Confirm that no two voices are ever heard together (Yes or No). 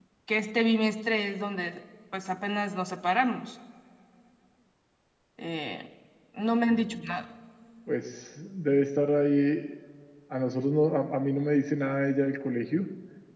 Yes